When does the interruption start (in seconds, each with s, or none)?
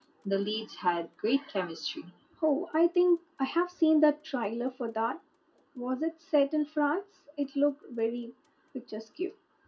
none